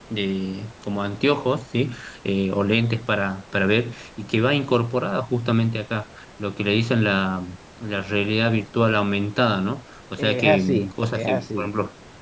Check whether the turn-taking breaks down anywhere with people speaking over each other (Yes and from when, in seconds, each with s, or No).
Yes, from 10.2 s